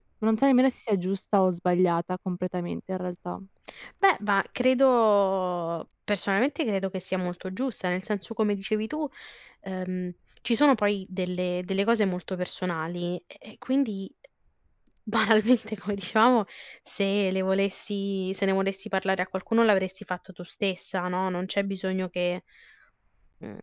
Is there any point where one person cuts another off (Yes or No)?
No